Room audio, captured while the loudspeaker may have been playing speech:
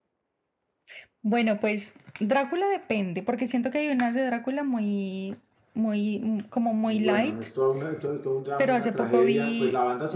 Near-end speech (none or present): present